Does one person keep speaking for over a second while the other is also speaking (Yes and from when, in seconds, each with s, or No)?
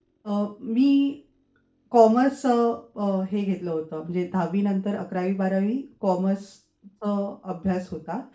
No